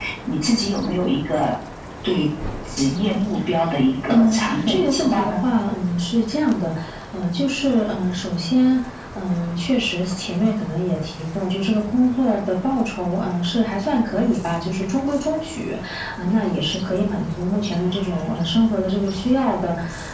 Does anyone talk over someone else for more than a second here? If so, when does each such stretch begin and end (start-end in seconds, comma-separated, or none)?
4.0-5.3